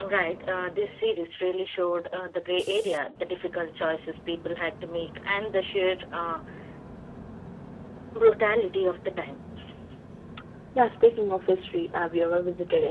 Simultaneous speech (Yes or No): No